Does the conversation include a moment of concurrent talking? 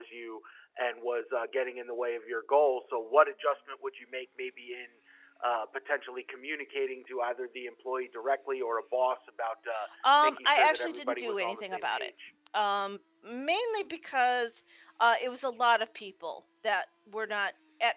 Yes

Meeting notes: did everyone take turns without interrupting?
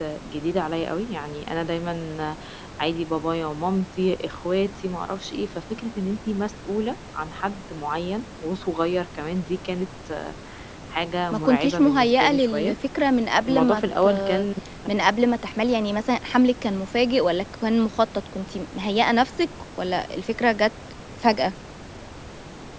No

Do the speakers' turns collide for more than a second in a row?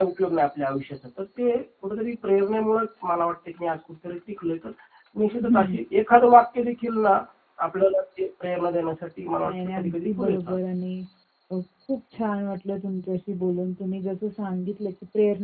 Yes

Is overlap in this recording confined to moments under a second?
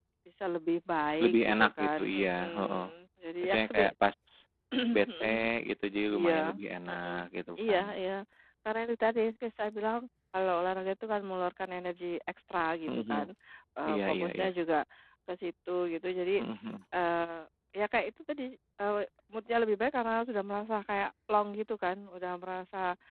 No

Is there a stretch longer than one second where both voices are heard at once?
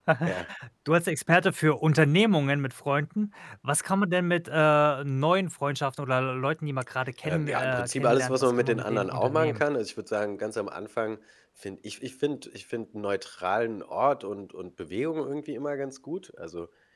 Yes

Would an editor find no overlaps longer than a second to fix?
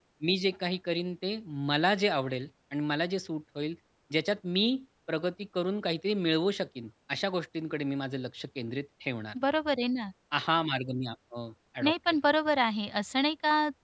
Yes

